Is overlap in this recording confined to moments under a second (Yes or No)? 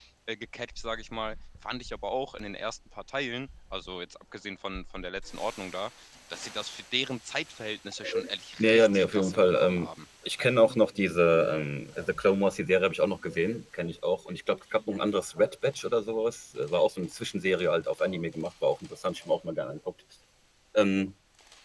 No